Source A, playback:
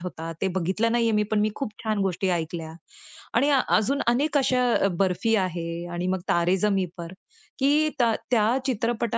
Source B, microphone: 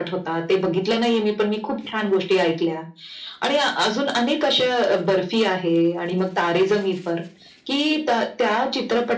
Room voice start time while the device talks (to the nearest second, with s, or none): none